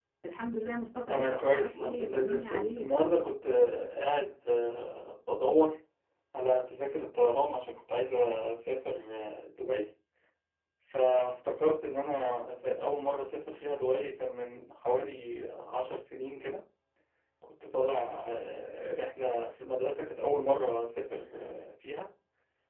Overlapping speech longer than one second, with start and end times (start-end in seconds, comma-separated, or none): 1.1-2.9